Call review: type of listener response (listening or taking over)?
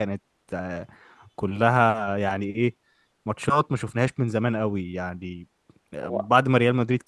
listening